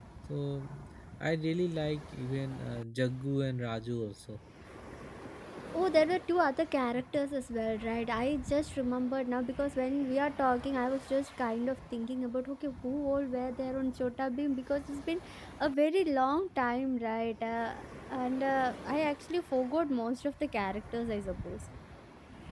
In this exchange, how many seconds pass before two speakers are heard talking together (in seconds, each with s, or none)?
none